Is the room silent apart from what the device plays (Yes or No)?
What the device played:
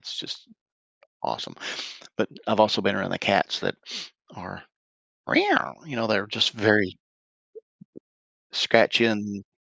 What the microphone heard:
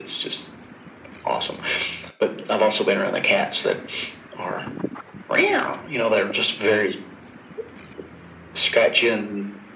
Yes